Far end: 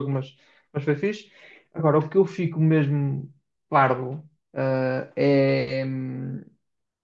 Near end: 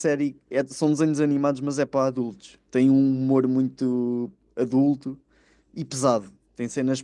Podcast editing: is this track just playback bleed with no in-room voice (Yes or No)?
No